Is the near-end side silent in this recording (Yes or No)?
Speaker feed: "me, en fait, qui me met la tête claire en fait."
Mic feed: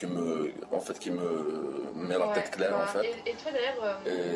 No